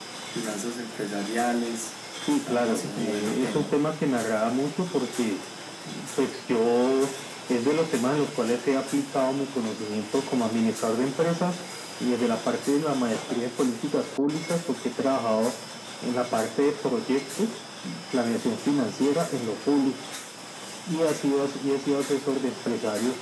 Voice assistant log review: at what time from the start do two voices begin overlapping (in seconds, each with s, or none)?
2.5 s